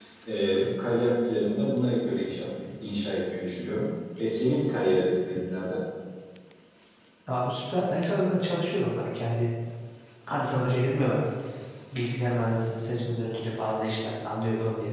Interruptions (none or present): none